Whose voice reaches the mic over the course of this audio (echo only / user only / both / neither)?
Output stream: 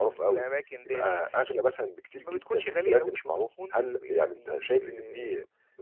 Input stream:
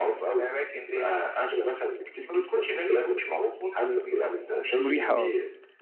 both